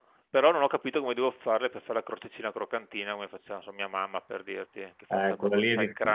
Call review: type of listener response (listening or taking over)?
taking over